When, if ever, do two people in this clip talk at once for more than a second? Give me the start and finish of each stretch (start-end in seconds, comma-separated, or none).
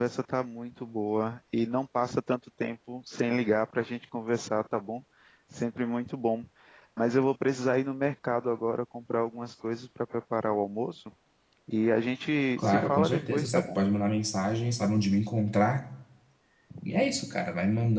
12.6-13.8